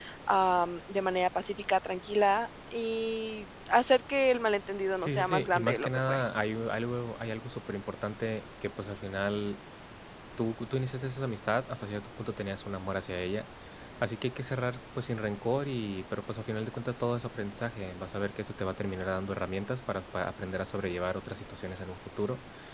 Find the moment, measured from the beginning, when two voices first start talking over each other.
5 s

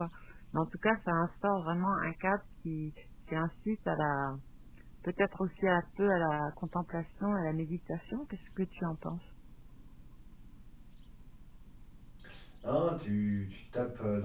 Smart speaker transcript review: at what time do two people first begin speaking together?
none

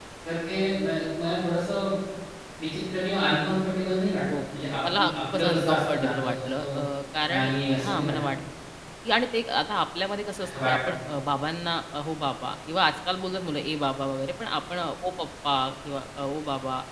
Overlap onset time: 5 s

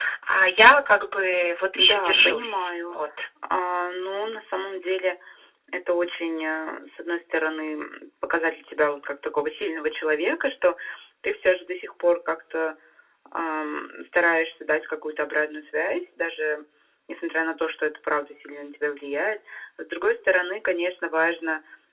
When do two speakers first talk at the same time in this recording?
2 s

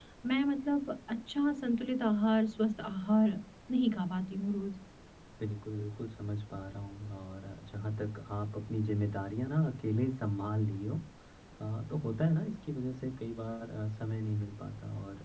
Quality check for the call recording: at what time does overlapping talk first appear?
none

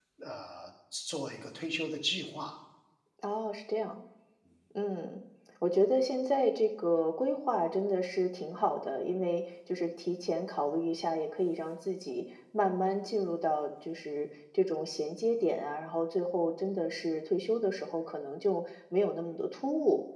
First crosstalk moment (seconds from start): none

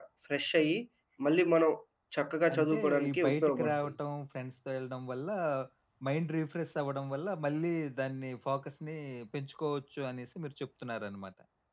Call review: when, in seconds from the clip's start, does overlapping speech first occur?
3 s

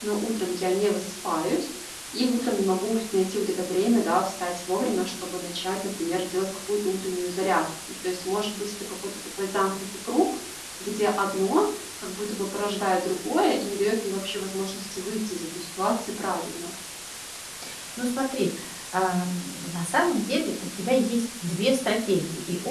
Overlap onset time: none

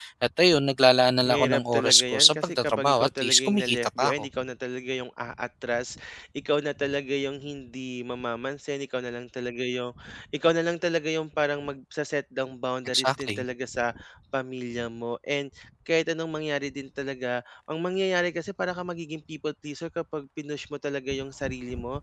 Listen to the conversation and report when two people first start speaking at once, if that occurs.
1 s

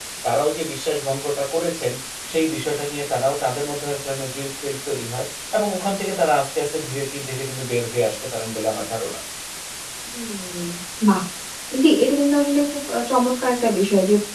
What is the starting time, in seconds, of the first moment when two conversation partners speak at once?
none

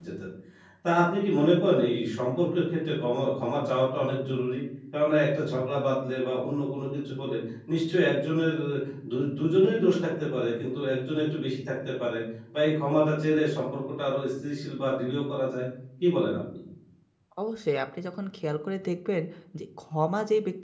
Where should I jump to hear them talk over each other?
none

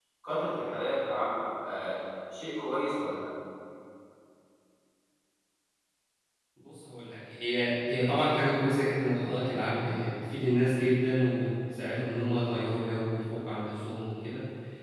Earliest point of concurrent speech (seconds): none

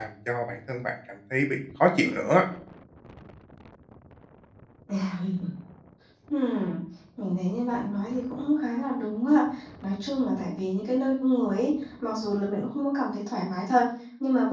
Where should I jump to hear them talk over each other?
none

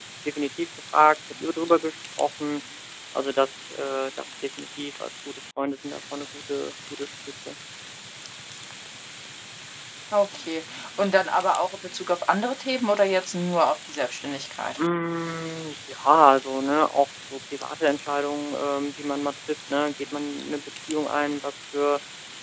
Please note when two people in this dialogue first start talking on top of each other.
none

